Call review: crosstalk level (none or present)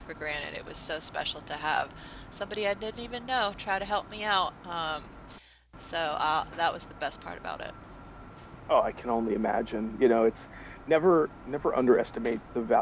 none